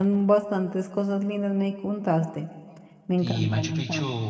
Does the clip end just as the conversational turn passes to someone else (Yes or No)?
Yes